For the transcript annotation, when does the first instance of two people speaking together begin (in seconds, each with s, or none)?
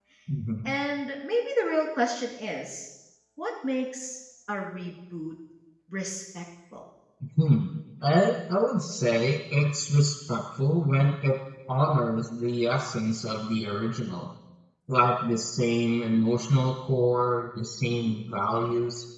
none